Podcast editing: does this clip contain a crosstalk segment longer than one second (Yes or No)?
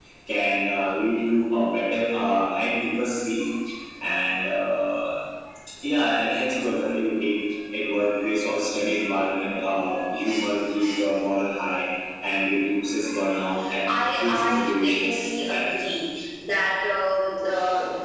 Yes